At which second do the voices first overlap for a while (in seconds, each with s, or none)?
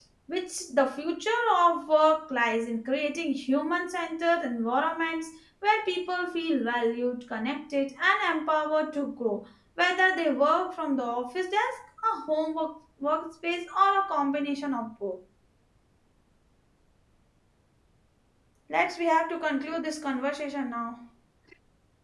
none